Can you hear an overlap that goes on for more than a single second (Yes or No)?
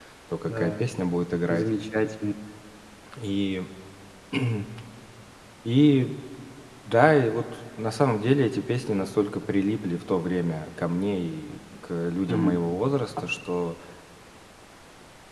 No